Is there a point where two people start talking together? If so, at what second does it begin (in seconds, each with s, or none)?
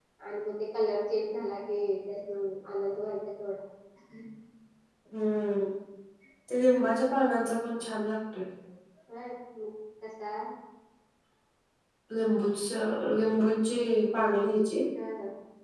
none